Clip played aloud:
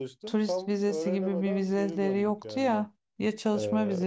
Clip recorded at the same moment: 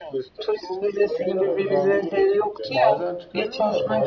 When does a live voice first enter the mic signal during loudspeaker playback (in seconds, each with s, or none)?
1.4 s